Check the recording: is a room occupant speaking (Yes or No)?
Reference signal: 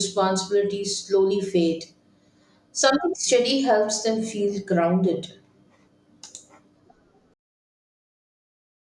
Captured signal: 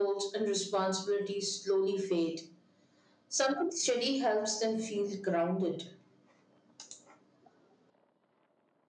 No